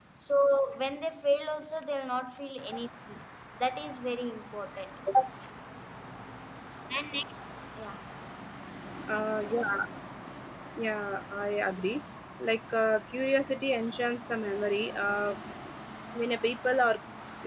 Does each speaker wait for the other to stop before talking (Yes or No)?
Yes